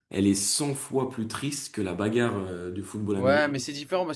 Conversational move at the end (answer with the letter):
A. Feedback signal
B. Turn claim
B